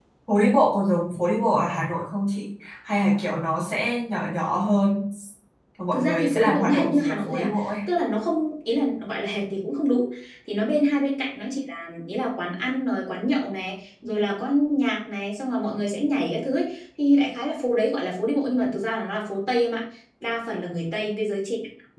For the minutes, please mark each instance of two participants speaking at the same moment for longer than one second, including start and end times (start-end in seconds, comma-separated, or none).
5.9-7.7